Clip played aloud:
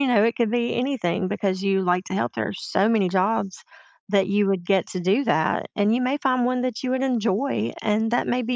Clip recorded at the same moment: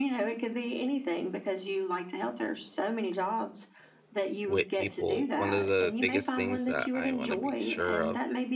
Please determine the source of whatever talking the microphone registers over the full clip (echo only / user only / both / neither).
both